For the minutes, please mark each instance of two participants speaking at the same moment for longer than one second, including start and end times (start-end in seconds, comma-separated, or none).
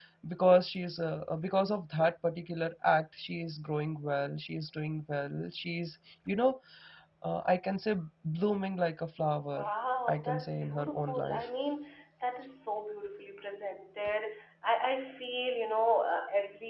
10.1-11.4